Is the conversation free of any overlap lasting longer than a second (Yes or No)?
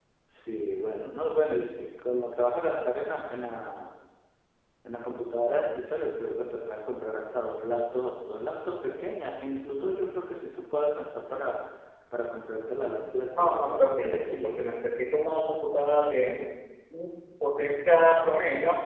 No